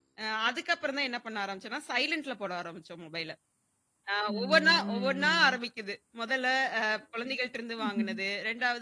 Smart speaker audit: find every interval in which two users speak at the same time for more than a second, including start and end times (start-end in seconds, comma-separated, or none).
4.3-5.6